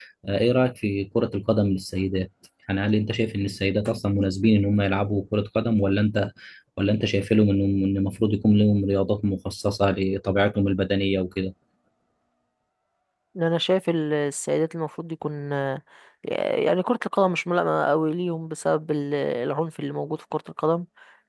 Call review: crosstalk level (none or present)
none